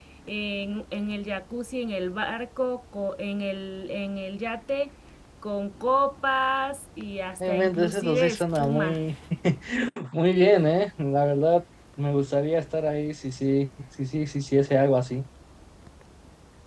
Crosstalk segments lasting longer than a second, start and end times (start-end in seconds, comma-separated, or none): 7.4-9.0